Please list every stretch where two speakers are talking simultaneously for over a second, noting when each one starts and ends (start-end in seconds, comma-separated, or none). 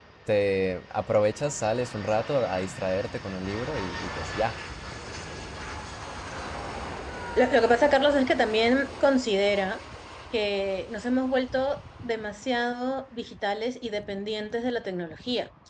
none